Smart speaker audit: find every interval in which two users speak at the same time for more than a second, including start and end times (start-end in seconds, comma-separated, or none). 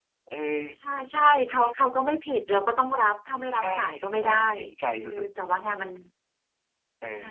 none